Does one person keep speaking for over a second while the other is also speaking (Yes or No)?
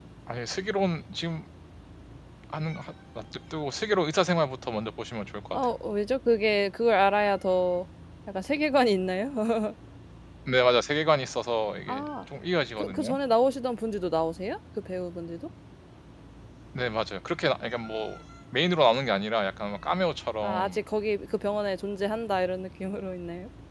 No